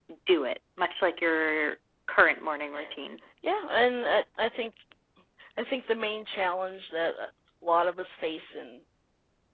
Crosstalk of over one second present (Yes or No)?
No